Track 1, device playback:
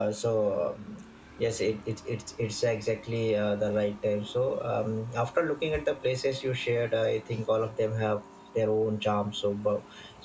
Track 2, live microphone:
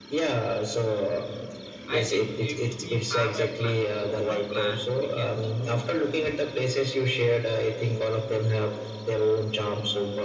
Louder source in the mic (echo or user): echo